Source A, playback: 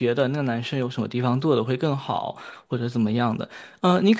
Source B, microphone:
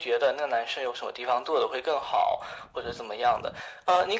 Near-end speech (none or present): none